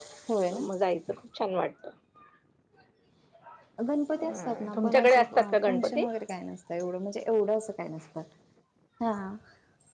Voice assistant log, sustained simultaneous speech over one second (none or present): present